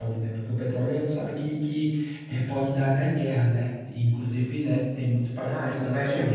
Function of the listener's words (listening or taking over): taking over